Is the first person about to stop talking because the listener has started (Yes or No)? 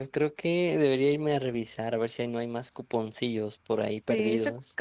Yes